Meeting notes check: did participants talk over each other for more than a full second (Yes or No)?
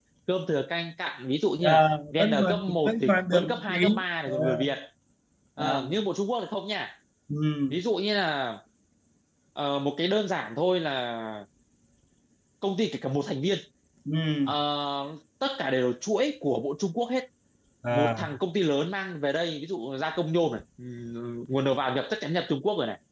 Yes